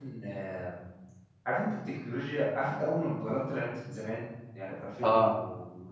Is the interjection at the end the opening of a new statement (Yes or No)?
No